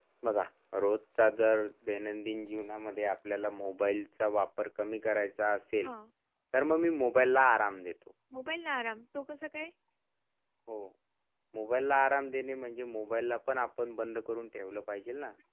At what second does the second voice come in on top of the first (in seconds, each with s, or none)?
none